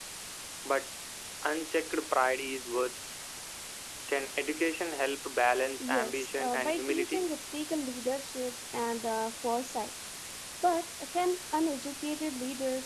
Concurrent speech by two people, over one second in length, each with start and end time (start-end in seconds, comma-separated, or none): 5.8-7.3